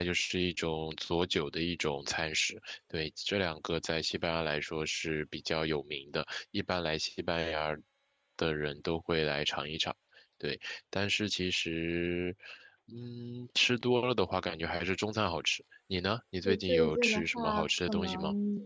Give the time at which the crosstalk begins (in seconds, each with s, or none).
16.4 s